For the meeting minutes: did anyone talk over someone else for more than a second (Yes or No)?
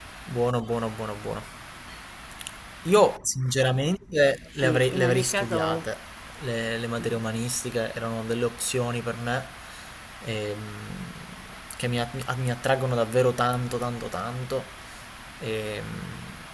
Yes